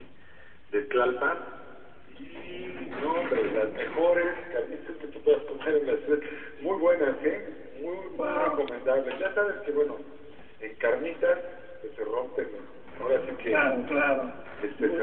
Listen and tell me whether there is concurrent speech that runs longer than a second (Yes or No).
No